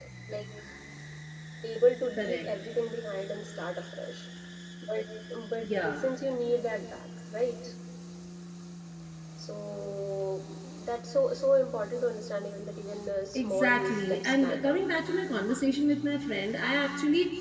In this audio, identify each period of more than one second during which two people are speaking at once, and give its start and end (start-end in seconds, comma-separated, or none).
13.3-14.8